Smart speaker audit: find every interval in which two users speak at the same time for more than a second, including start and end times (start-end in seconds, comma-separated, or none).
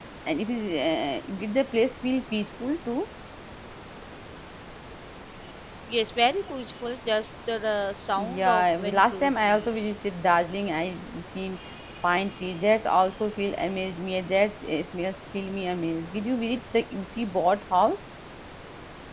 8.2-9.9